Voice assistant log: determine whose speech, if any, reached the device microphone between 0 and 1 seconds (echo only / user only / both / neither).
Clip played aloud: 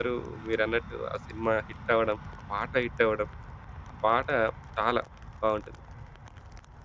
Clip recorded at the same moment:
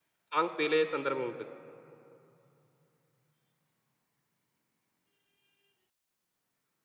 user only